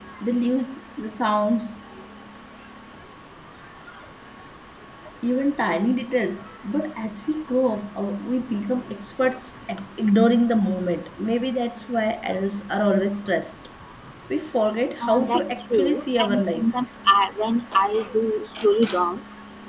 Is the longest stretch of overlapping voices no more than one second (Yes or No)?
No